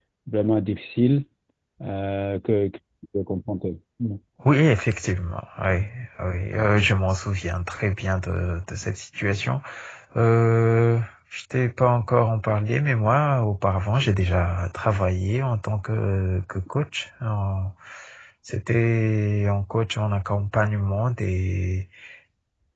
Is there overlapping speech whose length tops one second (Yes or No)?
No